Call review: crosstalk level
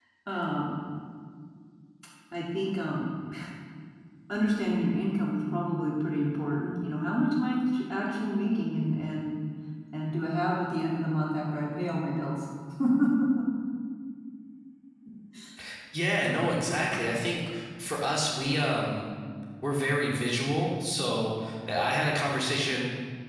none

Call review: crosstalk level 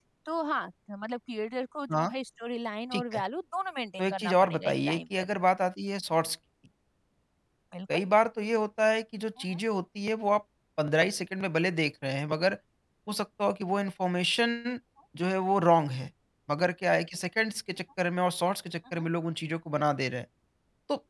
present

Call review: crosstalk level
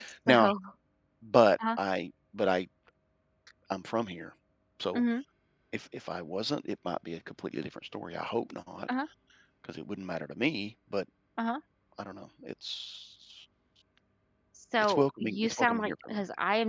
present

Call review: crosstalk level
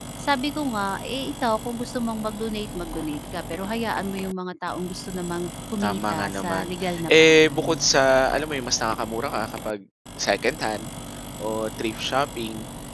present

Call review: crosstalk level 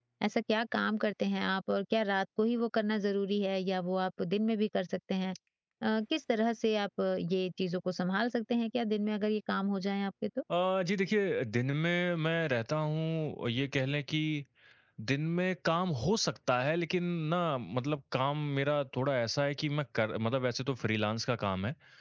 none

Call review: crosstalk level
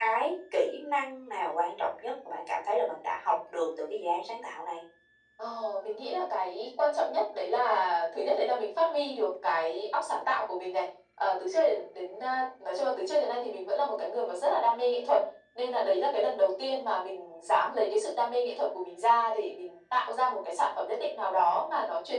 none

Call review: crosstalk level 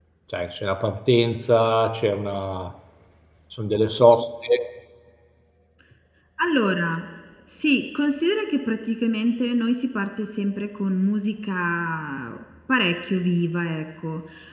none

